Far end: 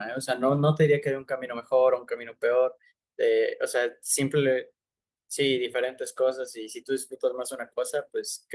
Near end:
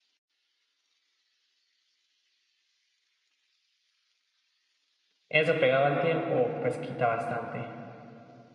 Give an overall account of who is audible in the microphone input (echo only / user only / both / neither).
user only